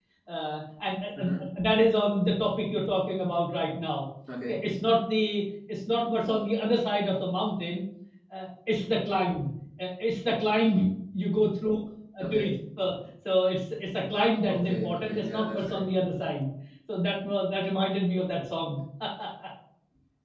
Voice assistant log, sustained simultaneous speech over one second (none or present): present